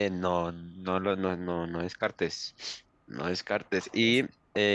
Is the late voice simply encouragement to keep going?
Yes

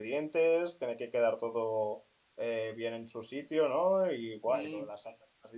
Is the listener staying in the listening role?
Yes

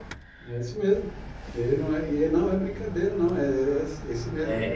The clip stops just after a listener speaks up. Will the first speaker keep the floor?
No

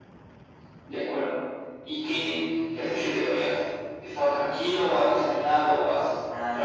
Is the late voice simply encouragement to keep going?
No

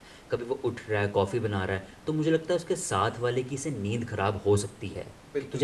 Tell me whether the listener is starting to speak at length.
Yes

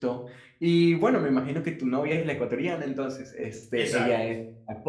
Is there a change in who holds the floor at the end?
No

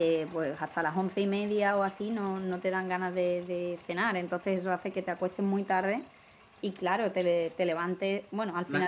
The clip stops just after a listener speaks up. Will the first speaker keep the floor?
Yes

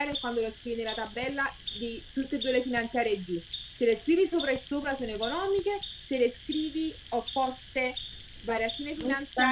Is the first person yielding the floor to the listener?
No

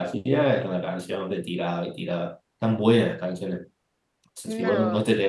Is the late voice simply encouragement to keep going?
Yes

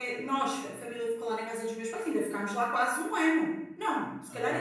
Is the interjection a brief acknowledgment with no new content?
Yes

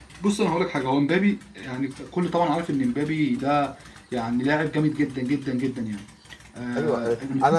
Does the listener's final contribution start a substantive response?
Yes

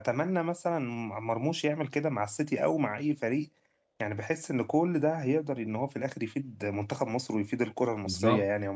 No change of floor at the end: No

